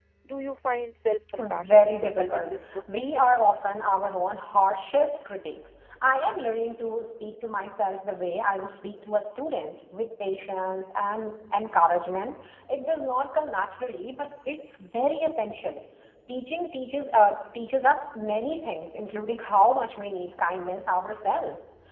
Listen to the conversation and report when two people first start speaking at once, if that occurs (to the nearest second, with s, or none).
1 s